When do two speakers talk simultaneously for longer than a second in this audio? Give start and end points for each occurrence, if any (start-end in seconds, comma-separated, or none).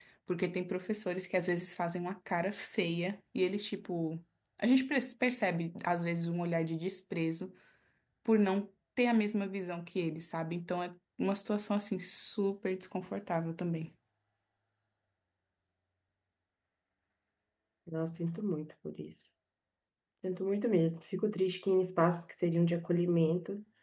none